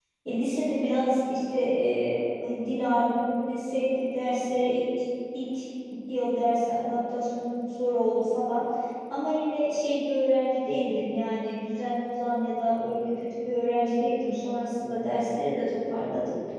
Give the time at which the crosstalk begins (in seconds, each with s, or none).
none